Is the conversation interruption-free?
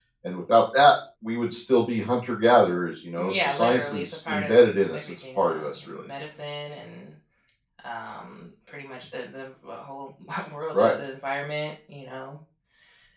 No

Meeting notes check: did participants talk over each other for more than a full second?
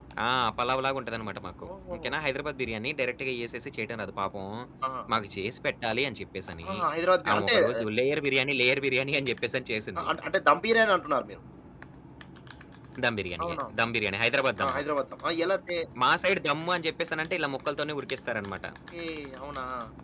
No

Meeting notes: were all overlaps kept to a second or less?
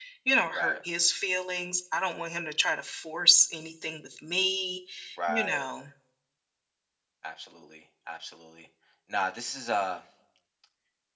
Yes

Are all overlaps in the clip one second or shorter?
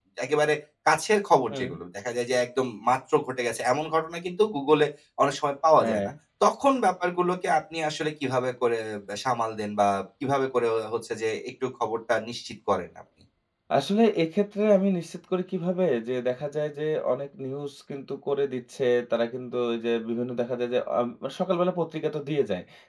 Yes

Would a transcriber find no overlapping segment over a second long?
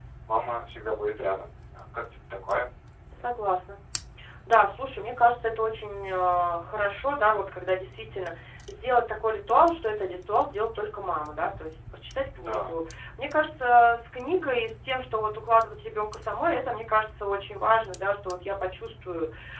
Yes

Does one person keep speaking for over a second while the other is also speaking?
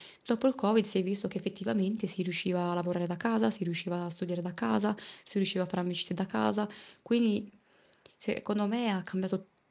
No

